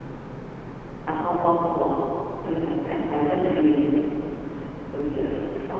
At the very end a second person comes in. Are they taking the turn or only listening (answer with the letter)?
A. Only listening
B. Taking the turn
A